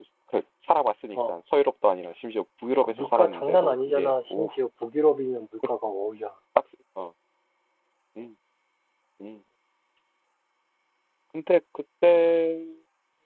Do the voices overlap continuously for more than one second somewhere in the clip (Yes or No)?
Yes